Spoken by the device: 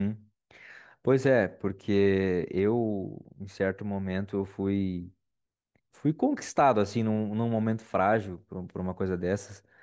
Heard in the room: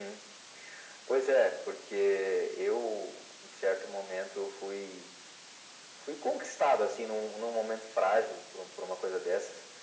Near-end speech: none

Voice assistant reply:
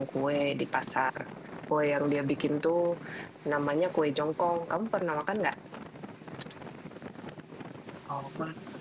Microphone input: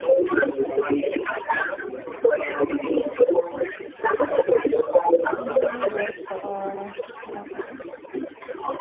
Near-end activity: present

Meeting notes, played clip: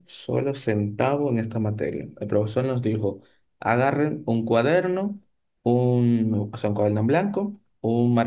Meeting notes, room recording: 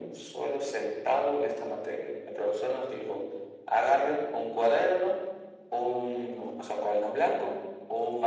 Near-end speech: none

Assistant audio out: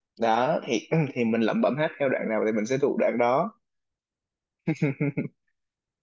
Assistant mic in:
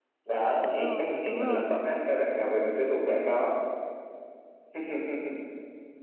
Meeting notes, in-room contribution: present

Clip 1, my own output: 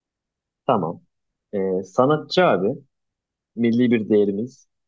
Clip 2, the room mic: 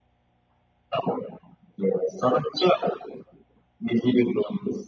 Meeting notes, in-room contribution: none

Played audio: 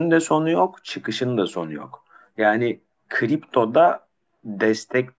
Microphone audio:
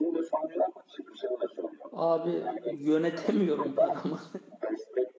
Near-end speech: present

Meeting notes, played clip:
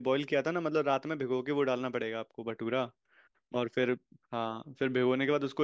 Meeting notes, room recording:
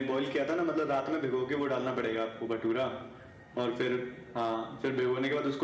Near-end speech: none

